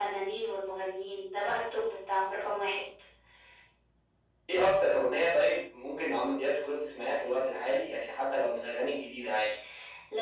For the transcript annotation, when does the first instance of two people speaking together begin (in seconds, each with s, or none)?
none